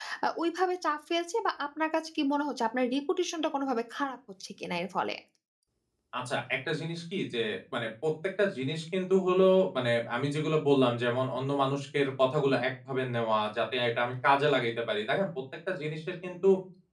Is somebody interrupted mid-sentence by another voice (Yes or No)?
No